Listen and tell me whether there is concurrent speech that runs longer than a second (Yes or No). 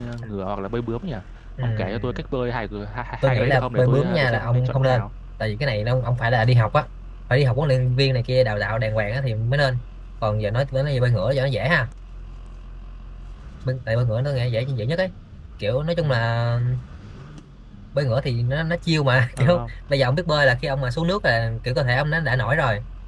Yes